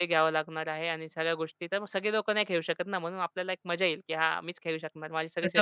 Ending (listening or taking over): taking over